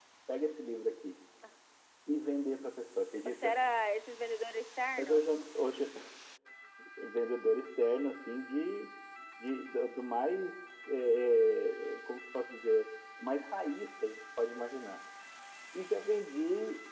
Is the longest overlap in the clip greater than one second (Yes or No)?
No